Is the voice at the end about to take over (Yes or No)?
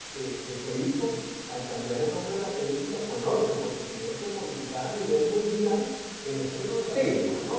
Yes